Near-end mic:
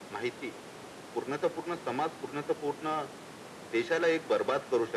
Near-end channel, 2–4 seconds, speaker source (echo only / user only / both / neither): echo only